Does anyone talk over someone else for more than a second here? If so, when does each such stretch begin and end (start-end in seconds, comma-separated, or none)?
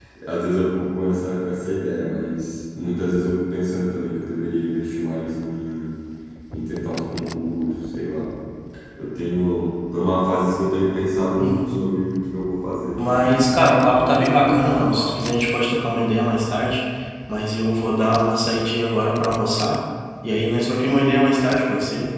13.0-15.2